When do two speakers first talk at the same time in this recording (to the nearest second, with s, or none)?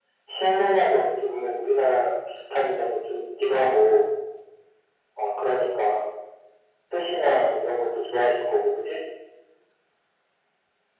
none